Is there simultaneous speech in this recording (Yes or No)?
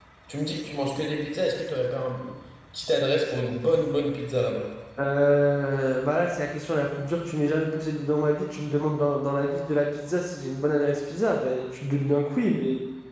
No